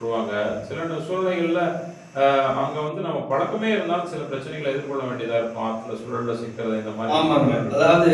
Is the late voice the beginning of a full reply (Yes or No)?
Yes